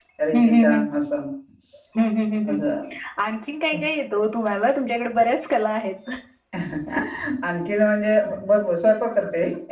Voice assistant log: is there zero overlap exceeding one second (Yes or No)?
Yes